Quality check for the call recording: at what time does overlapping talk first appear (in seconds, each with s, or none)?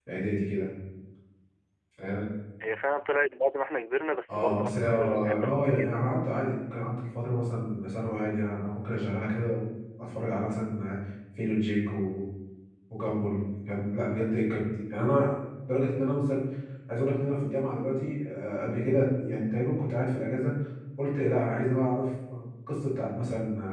4.3 s